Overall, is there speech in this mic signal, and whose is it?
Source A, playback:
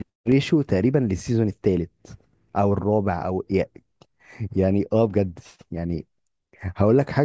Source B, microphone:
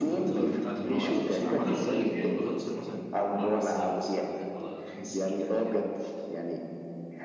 both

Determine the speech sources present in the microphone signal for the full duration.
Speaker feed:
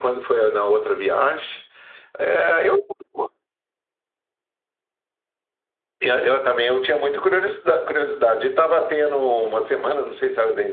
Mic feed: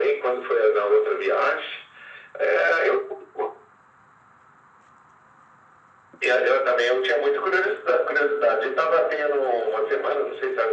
echo only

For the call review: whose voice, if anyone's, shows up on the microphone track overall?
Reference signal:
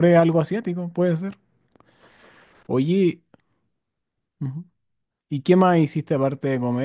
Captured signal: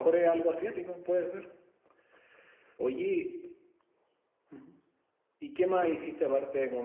echo only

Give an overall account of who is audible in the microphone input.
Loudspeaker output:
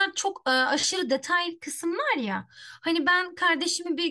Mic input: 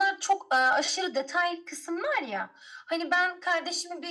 echo only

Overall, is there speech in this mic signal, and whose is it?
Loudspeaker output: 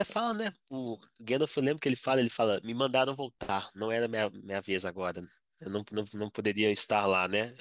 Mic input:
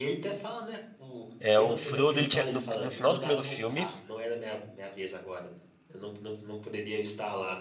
both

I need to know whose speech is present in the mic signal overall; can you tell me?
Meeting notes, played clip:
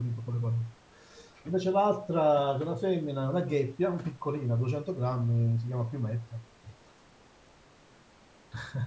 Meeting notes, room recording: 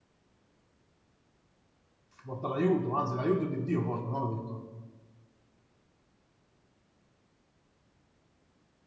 user only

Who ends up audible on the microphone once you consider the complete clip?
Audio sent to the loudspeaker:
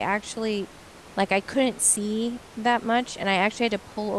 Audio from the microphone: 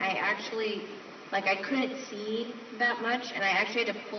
echo only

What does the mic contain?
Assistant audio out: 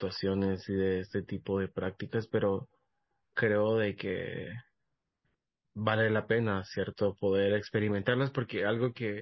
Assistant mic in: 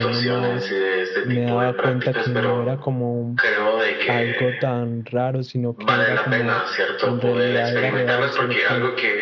both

